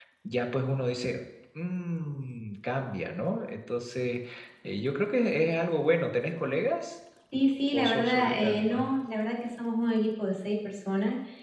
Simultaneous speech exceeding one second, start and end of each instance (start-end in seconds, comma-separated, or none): 7.7-8.9